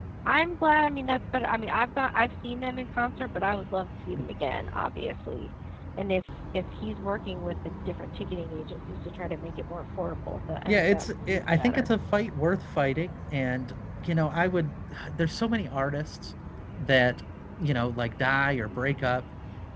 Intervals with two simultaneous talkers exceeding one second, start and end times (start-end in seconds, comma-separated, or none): 10.7-11.9